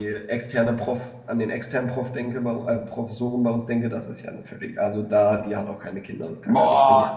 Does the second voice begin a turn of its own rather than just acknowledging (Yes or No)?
Yes